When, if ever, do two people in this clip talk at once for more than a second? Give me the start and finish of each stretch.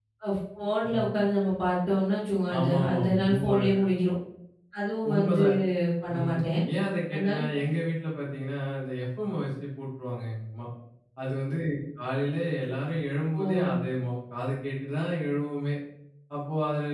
2.6-3.8

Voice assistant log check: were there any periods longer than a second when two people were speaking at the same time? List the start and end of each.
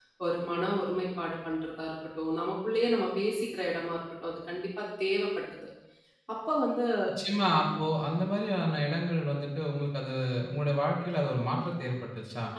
none

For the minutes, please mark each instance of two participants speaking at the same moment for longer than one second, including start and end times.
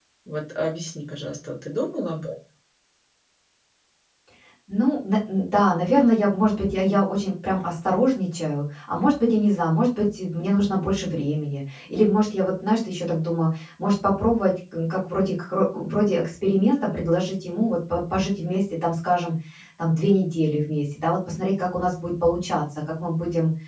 none

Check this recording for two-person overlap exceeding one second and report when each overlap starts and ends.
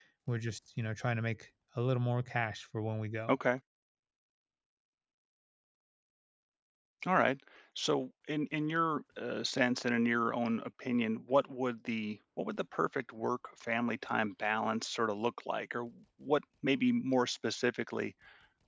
none

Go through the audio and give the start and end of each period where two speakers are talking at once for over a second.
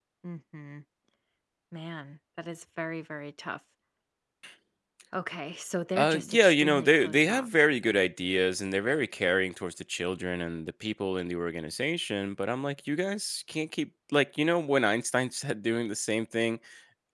6.0-7.5

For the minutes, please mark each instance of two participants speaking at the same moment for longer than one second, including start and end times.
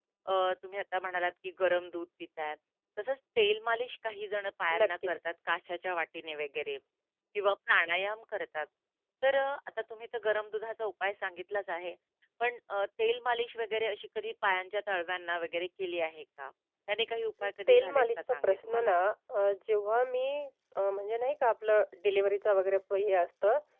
17.7-19.0

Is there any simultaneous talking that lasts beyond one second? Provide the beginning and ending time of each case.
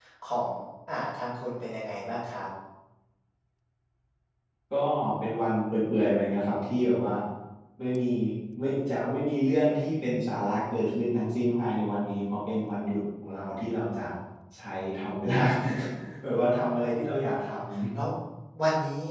none

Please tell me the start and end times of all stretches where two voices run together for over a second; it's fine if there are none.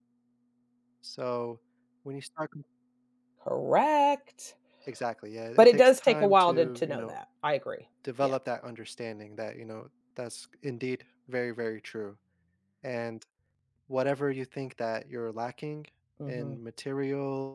5.6-7.2

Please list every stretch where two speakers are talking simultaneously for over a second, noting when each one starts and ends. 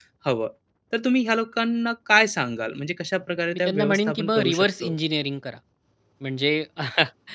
3.5-4.9

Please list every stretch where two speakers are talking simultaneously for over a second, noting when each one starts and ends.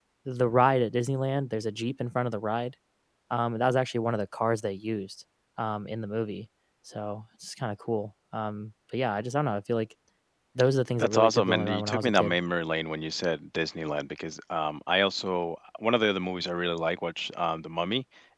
11.0-12.4

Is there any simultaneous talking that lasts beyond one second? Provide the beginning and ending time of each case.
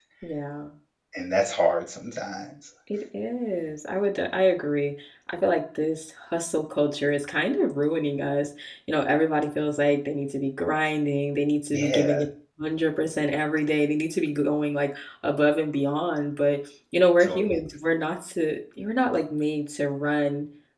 none

